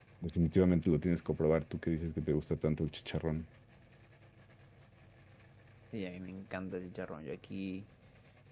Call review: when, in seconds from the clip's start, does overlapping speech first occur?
none

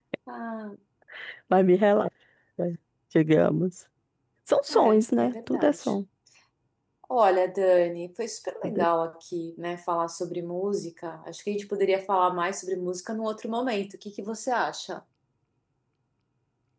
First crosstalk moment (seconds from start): 4.7 s

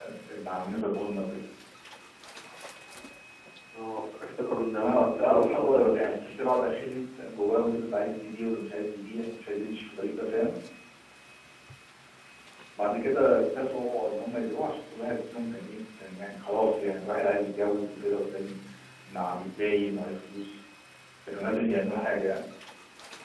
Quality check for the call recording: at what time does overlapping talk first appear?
4.8 s

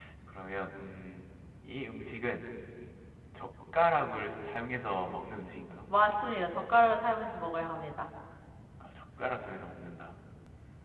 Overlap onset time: none

